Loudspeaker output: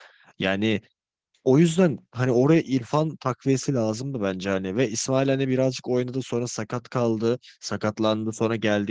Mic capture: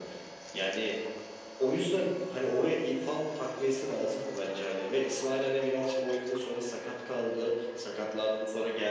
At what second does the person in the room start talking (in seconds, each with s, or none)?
none